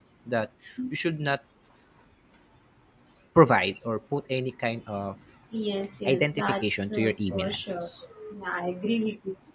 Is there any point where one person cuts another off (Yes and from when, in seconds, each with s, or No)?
Yes, from 6.0 s